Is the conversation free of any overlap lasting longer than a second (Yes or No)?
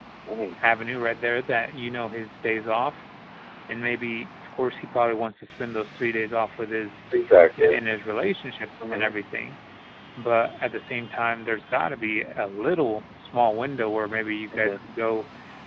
Yes